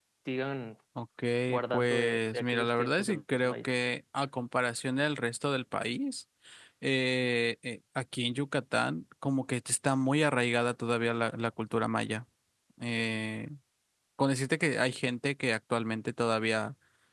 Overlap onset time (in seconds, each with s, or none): 1.7 s